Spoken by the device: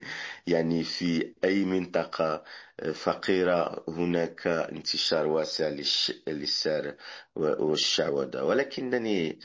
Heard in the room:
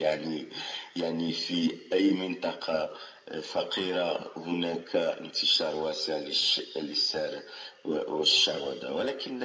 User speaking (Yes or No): No